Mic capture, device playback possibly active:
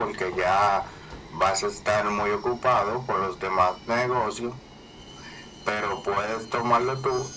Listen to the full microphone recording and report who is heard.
echo only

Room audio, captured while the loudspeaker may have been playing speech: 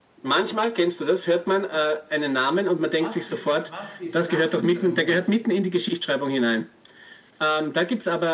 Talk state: both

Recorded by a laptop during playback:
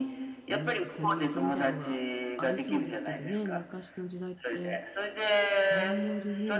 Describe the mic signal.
both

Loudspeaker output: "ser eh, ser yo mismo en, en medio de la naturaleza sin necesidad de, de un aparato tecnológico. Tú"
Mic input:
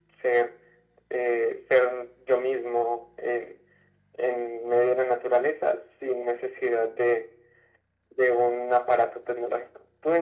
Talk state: echo only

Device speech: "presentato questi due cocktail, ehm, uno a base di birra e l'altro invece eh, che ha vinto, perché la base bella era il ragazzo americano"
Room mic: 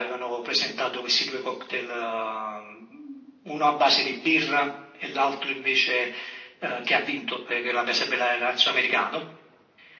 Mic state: echo only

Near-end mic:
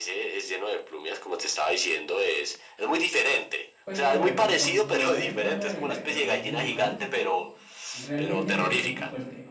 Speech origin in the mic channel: both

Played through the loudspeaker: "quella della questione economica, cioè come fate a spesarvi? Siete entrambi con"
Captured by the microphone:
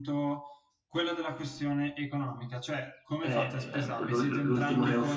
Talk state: both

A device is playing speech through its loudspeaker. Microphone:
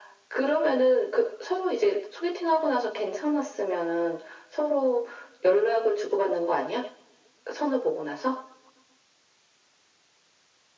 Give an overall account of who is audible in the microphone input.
echo only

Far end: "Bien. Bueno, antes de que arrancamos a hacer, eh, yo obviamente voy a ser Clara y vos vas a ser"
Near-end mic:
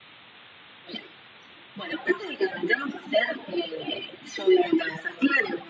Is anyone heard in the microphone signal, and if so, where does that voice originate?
echo only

